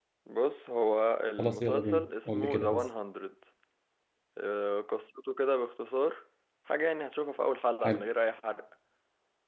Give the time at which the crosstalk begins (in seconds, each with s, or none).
1.4 s